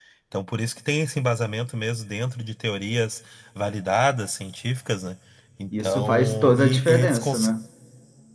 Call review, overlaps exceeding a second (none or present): present